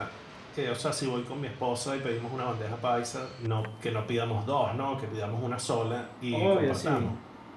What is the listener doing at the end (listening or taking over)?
listening